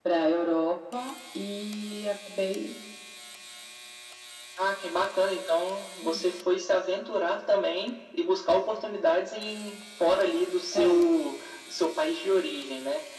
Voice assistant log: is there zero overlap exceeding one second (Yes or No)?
Yes